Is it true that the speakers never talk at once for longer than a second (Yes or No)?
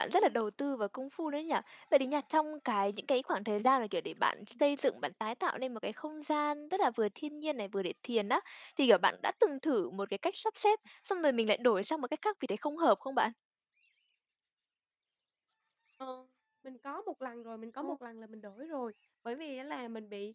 Yes